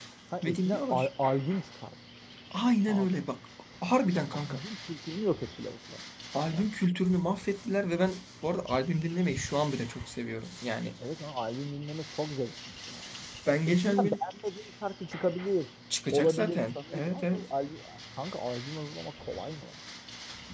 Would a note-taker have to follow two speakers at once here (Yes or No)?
Yes